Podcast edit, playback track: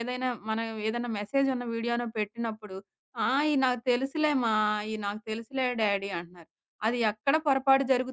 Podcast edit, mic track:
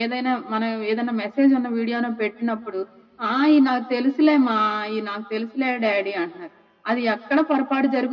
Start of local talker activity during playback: none

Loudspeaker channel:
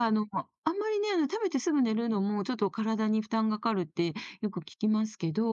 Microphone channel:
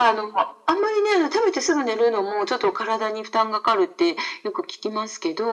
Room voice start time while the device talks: none

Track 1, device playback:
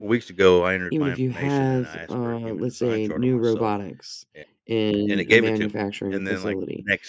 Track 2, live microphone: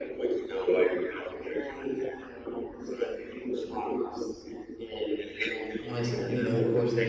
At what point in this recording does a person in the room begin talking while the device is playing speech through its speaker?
5.8 s

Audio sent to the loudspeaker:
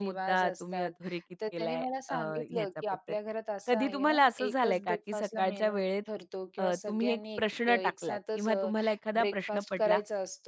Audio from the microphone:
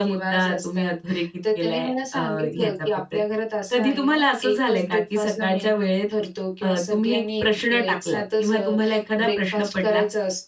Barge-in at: none

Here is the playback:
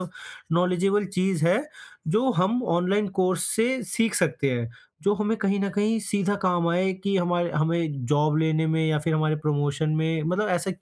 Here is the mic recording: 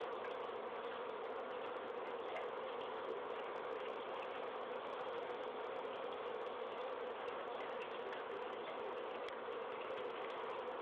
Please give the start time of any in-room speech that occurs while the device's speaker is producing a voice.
none

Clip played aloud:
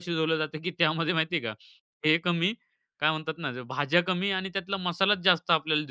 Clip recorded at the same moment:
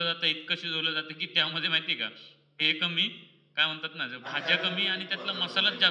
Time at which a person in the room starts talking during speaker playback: 4.3 s

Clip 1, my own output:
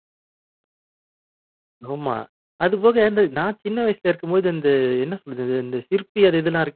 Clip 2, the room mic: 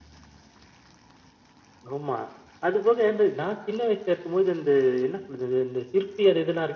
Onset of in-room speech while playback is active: none

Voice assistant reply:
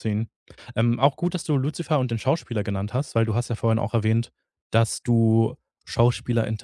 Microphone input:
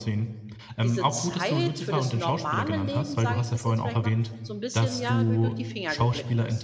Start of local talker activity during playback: 0.8 s

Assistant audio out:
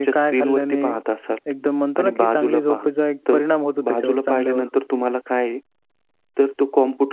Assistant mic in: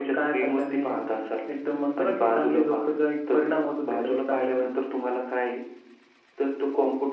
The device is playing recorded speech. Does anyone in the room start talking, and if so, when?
none

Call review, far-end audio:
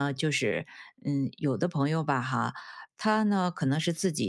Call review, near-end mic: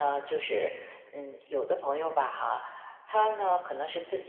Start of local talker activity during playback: none

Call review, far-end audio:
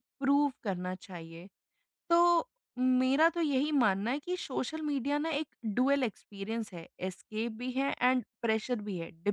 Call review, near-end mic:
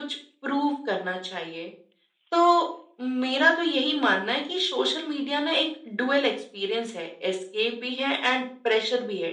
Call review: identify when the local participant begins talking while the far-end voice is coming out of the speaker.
none

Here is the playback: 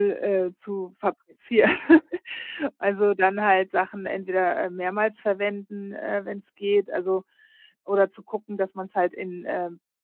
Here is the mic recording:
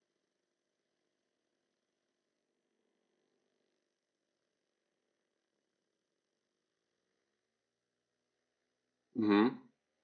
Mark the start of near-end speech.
9.1 s

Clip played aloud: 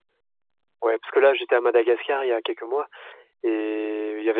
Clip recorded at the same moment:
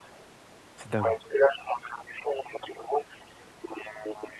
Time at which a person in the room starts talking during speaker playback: 0.8 s

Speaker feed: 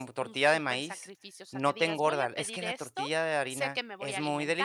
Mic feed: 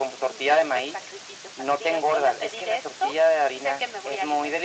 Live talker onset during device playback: none

